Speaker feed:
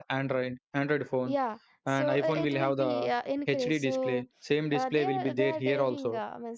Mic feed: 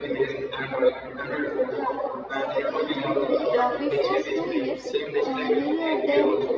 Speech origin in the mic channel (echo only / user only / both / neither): both